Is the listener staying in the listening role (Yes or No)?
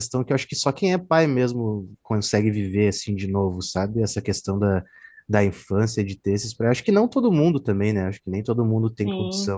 Yes